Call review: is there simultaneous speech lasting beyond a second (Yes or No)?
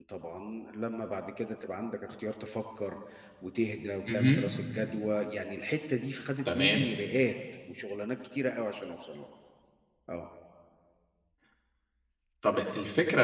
No